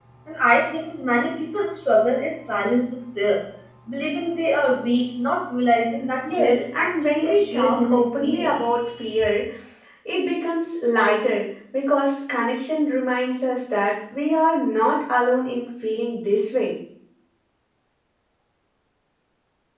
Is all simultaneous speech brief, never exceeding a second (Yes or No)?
No